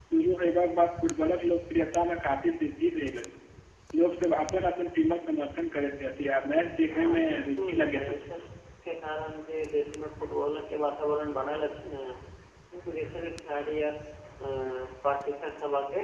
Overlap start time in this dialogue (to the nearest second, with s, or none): 7 s